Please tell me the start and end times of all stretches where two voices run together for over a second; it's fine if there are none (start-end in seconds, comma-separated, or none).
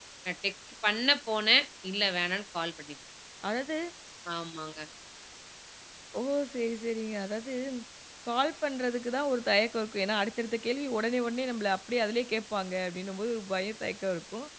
none